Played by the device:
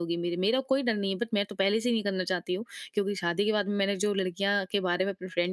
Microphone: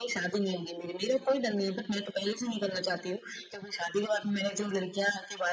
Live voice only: none

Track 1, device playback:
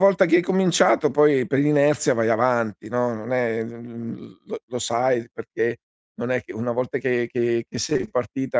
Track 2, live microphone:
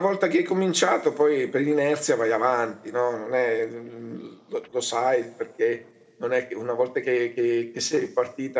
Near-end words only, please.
none

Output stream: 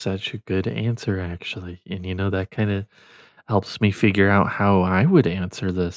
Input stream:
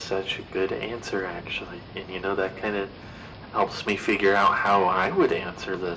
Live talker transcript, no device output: none

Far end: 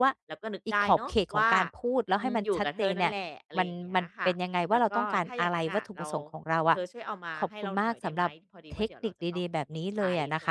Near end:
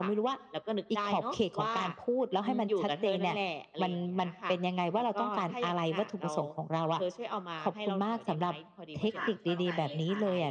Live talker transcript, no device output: ค่ะเข้าใจเลยค่ะ

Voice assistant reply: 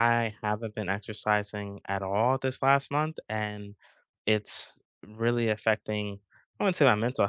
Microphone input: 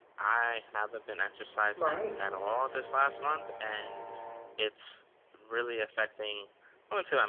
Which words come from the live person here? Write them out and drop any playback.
Right.

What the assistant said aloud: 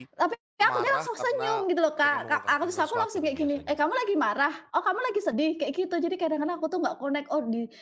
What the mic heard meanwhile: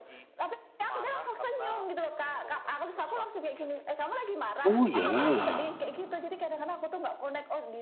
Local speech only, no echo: Oh ya,

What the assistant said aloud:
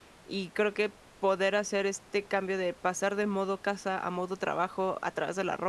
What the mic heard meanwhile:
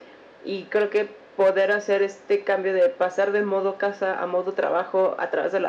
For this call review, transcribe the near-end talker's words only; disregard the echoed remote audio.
none

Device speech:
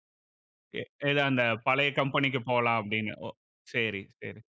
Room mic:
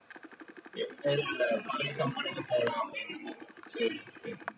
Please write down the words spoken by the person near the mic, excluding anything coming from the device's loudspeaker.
none

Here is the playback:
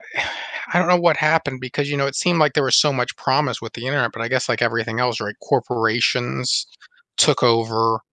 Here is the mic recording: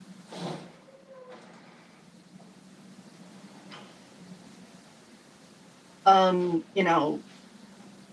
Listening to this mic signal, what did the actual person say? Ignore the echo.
um, you know,

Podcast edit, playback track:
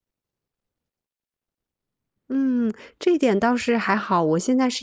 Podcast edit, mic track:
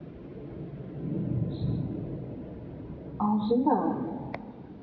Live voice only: 哦，真的啊，

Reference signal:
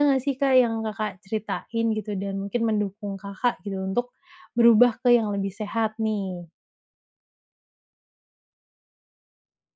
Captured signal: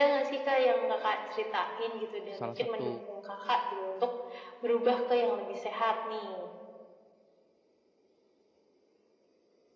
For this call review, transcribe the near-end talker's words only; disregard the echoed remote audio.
salah satu

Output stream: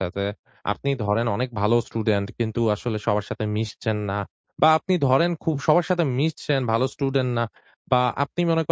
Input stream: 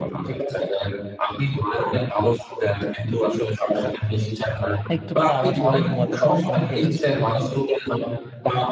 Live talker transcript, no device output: একটু কোনো আওয়াজ হলেই ঘুমাতে পারছি না, উঠে যাচ্ছি।

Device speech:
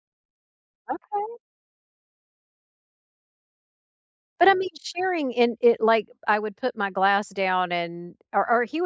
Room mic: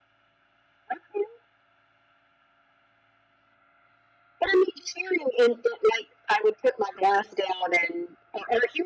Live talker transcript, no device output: none

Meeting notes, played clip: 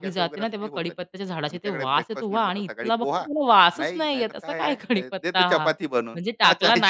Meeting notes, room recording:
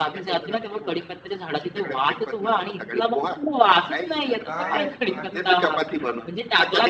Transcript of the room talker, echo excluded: काय काय आहे?

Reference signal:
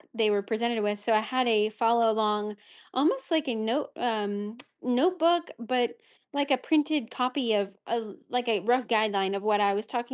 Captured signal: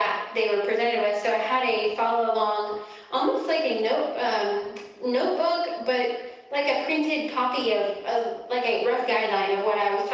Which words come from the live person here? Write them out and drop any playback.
none

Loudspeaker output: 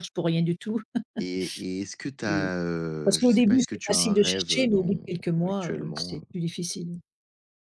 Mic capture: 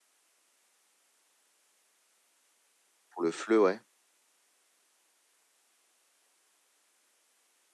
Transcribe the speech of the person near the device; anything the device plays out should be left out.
Pour le FLE, ouais,

